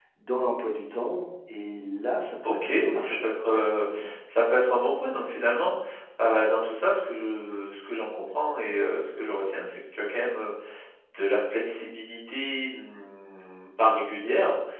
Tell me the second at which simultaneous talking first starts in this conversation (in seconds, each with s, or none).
2.4 s